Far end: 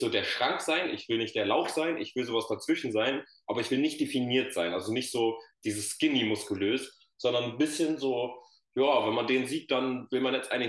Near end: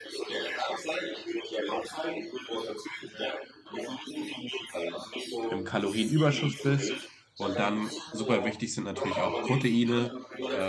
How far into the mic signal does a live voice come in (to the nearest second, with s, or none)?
5 s